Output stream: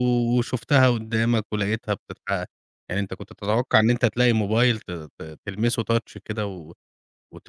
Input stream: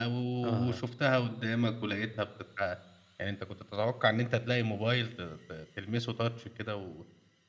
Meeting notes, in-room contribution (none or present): present